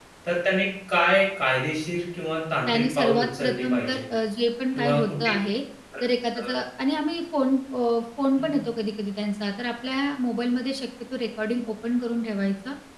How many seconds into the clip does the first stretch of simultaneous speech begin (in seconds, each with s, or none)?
2.7 s